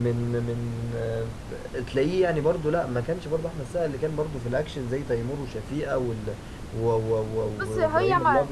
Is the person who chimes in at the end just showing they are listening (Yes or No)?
No